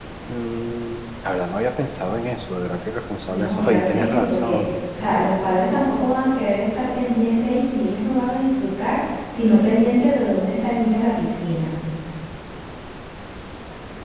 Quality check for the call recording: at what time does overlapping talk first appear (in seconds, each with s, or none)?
3.2 s